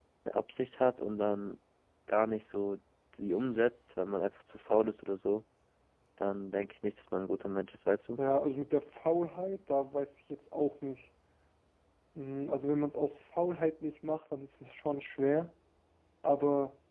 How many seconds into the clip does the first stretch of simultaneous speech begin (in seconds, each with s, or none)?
none